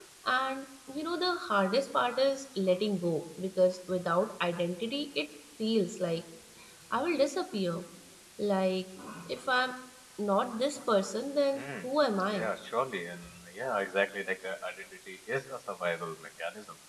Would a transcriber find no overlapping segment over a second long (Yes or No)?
Yes